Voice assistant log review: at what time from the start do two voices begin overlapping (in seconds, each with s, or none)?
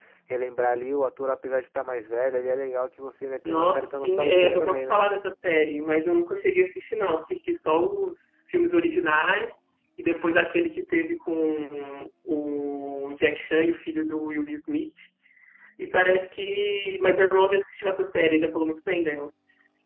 3.4 s